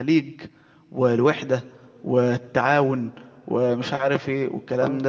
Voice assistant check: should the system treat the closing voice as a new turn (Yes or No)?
Yes